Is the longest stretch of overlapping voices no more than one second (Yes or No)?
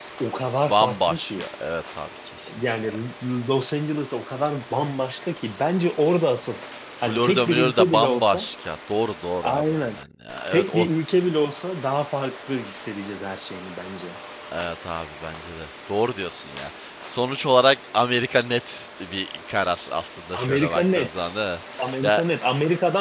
No